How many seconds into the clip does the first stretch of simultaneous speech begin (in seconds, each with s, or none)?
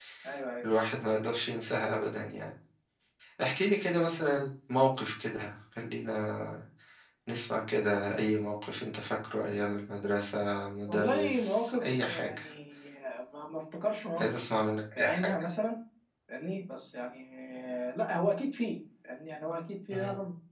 10.9 s